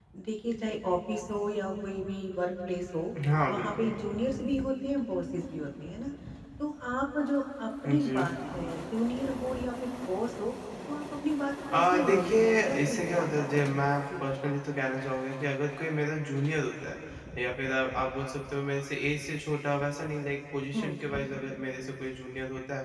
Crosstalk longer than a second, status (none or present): present